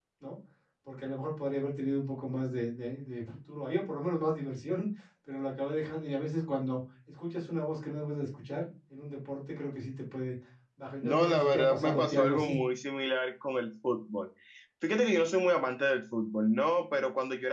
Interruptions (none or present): present